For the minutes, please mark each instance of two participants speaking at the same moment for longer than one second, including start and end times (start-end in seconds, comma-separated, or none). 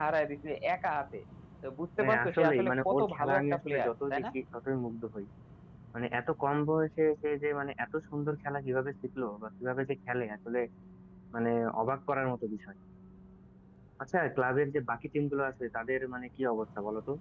2.0-4.2